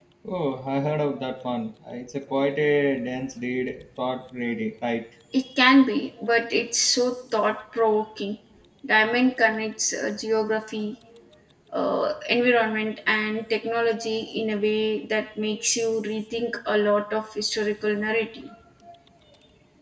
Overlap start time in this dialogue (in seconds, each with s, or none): none